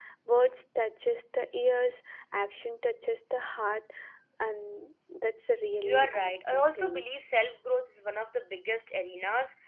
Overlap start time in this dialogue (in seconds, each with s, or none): 5.8 s